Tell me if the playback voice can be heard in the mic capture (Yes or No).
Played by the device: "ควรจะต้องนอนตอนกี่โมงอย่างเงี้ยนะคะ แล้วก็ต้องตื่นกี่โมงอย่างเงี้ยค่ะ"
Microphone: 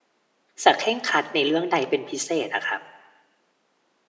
No